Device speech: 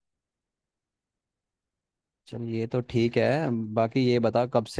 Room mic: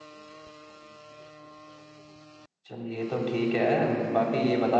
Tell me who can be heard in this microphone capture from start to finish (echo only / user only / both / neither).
echo only